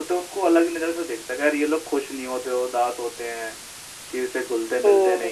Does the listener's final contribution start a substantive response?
No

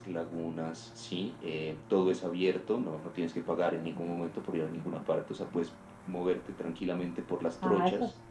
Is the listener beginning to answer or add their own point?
Yes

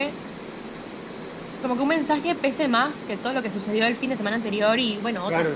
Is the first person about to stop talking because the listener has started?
Yes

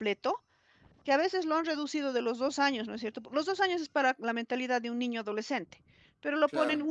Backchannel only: Yes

